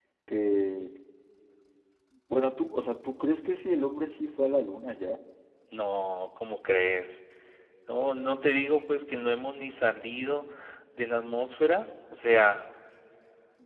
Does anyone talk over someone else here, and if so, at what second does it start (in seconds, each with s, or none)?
none